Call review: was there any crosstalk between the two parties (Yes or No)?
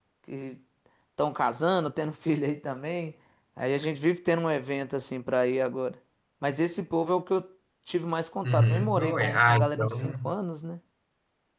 Yes